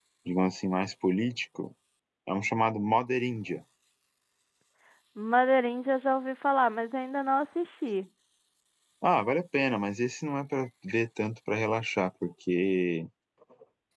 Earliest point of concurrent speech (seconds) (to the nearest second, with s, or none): none